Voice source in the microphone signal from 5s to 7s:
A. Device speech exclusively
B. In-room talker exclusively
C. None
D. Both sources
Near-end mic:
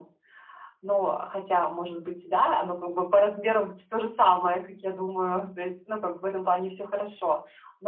A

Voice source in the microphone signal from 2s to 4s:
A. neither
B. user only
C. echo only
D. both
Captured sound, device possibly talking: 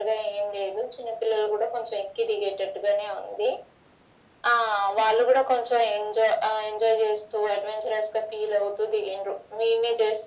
C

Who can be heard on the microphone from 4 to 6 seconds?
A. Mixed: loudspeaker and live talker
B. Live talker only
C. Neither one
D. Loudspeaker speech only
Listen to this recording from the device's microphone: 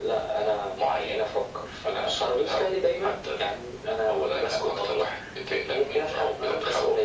D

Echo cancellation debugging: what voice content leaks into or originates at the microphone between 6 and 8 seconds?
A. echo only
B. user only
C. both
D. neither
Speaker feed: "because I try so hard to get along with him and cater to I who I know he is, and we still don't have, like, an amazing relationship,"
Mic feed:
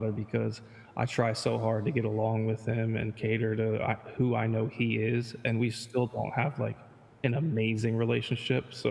A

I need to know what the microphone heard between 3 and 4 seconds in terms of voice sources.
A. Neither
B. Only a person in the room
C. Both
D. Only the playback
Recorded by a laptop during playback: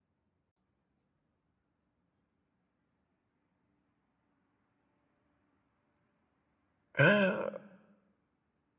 A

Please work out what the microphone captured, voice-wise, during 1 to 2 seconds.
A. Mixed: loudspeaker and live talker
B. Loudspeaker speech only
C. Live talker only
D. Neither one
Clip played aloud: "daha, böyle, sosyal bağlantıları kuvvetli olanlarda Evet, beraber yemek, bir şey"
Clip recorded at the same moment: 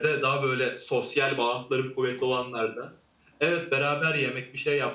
B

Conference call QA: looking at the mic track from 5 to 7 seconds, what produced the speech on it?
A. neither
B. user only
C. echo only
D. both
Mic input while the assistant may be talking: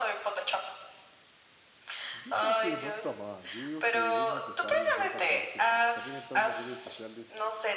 D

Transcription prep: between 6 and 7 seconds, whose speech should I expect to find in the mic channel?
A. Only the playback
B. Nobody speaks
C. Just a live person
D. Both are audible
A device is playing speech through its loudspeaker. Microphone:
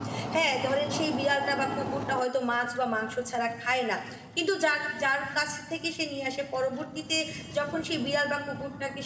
C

